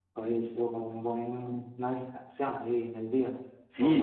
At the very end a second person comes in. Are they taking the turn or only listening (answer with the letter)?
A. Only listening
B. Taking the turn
B